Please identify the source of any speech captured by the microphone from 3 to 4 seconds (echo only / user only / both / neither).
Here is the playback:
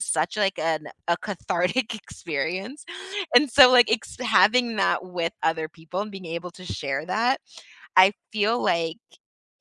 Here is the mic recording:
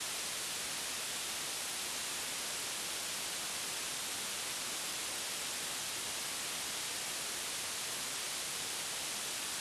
neither